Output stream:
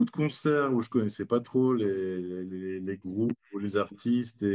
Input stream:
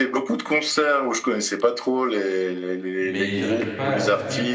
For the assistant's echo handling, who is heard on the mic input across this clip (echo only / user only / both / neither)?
both